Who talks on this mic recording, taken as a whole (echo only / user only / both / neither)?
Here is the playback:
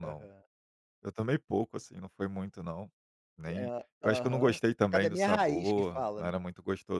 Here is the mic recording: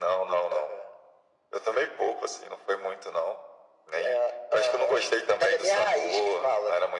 echo only